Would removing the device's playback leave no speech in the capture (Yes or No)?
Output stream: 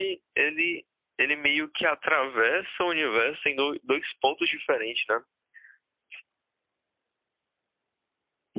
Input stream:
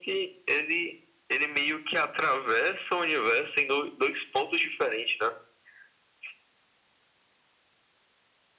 Yes